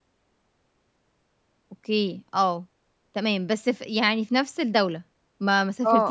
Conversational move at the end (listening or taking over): taking over